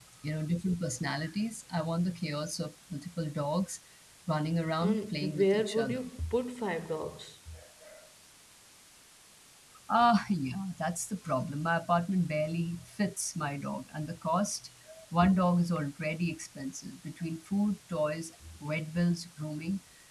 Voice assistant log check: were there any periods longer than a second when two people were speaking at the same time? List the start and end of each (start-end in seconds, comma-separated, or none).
4.8-6.1